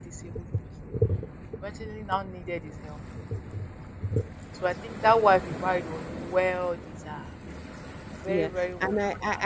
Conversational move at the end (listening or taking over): taking over